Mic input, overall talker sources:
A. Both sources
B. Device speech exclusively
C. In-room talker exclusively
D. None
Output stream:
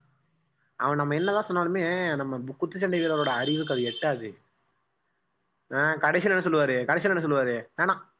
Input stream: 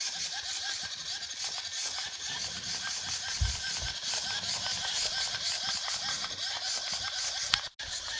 D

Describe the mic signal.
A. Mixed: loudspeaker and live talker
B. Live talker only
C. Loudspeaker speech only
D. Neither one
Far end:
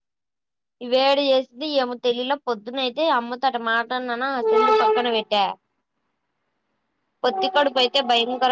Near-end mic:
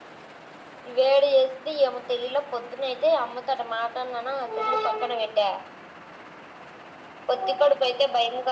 C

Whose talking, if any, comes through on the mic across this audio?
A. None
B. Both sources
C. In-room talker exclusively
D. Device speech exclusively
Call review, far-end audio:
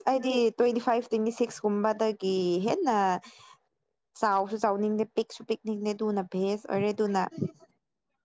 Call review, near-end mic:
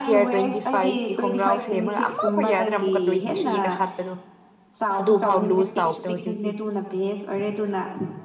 B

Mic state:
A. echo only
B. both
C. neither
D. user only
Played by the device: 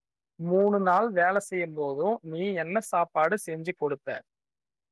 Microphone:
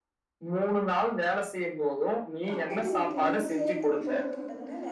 B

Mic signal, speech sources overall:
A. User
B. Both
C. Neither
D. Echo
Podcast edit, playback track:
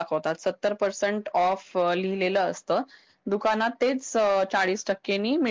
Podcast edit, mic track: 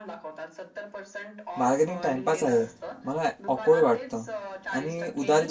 B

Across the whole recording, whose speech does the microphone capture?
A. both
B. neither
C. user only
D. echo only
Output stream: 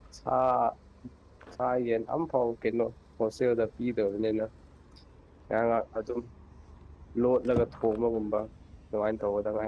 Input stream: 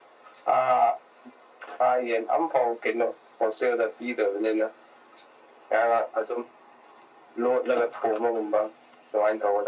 D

